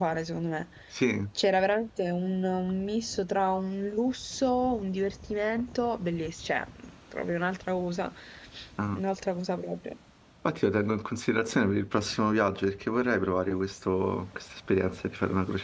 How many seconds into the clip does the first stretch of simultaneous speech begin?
none

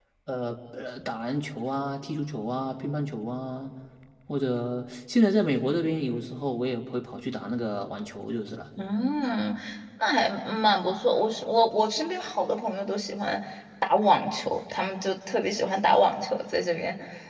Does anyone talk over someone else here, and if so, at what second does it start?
none

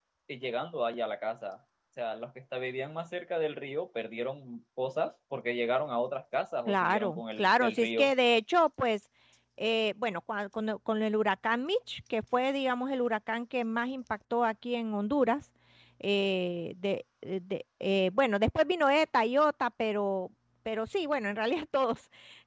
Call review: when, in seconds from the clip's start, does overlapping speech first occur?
6.7 s

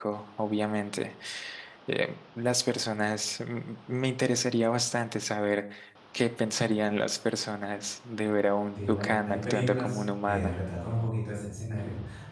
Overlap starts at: 8.8 s

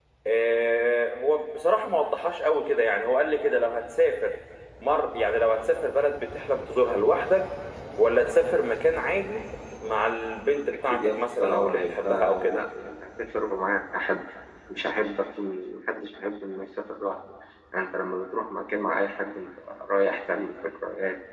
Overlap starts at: 10.9 s

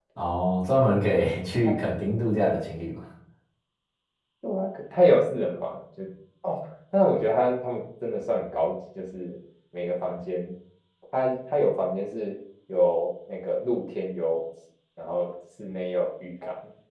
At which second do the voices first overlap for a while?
none

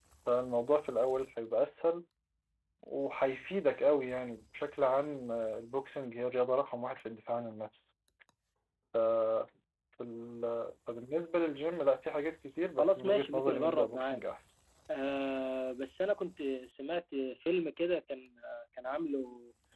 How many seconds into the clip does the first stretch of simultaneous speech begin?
12.8 s

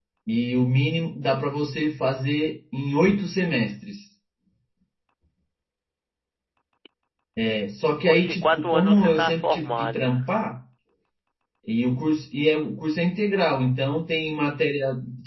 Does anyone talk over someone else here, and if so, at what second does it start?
8.1 s

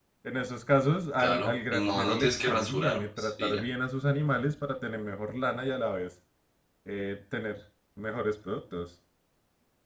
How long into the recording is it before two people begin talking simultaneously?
1.2 s

